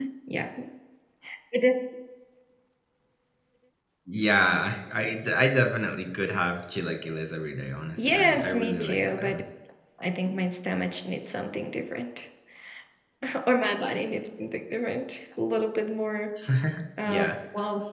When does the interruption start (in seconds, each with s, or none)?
8.0 s